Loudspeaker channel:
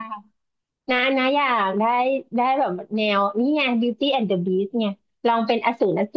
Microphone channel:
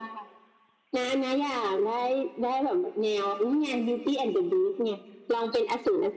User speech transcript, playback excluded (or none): none